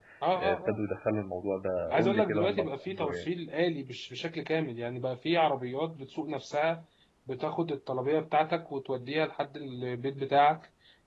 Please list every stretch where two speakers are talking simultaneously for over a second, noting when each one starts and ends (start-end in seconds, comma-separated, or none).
1.9-3.3